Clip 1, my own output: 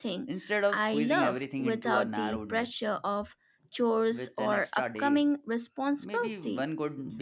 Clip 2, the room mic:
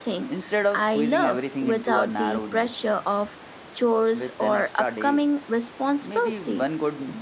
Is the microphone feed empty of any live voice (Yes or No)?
Yes